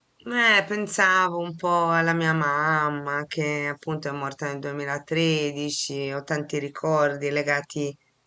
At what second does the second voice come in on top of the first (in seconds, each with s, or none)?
none